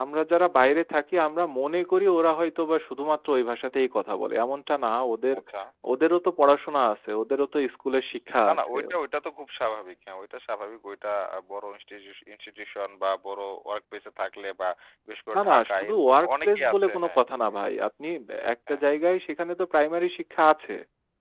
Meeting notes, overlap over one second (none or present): present